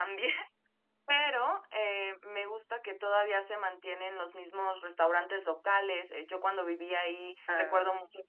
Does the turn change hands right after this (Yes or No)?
No